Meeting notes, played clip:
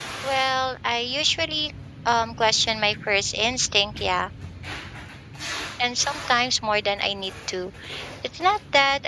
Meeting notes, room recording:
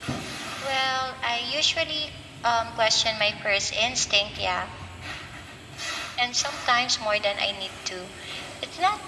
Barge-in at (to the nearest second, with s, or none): none